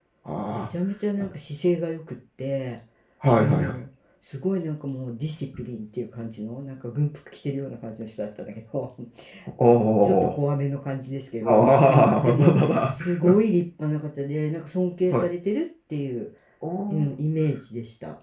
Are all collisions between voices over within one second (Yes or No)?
No